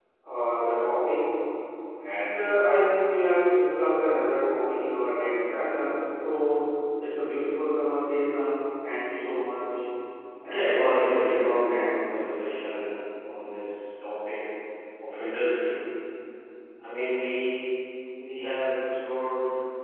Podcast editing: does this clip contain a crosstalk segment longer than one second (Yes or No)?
Yes